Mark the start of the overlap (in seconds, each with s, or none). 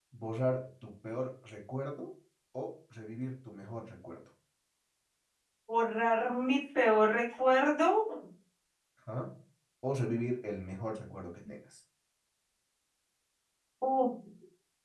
none